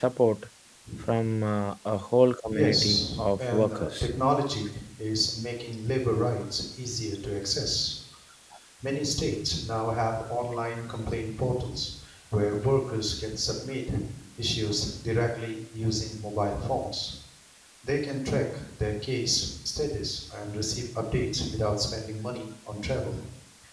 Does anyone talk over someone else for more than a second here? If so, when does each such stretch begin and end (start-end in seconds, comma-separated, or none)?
2.5-4.1